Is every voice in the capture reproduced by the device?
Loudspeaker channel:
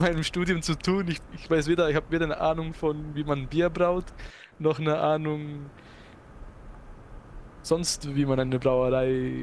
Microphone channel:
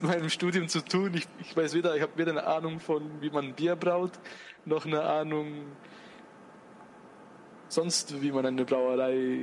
Yes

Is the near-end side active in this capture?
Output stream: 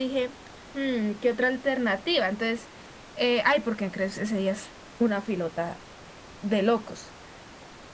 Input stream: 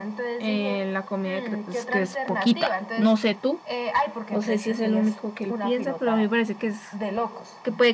Yes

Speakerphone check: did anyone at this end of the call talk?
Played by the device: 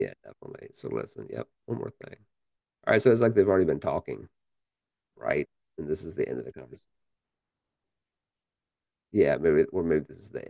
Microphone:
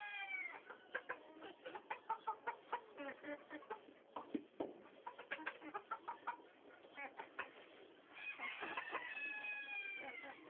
No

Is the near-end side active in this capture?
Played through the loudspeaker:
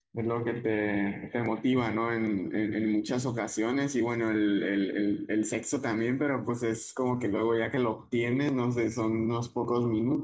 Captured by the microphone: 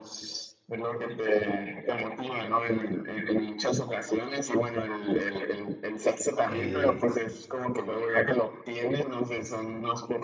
Yes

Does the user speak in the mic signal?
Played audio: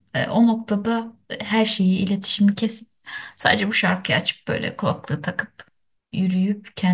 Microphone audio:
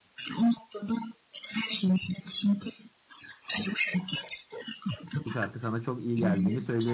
Yes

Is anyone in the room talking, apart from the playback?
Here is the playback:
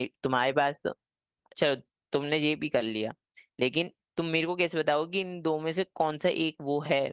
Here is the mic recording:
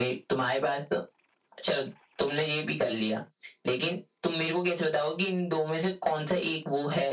No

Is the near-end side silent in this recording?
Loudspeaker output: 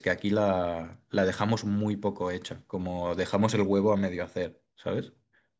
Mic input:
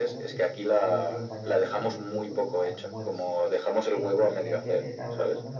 No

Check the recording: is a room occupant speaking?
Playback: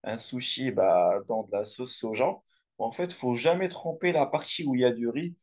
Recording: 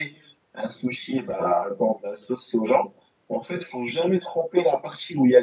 No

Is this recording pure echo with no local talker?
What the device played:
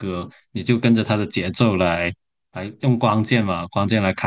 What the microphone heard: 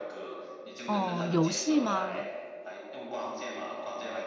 No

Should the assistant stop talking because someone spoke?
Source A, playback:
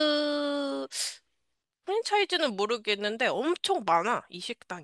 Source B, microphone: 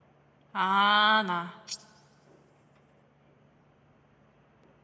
Yes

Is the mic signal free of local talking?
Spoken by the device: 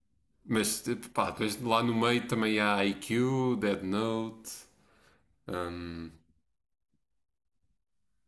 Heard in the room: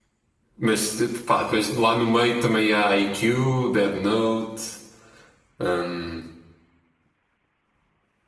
Yes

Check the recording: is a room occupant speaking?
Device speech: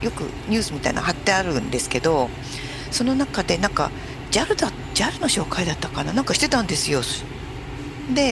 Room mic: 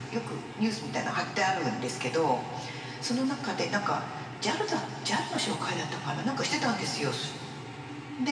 No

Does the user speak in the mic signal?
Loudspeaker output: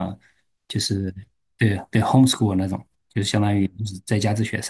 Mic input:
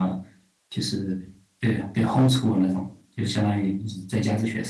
No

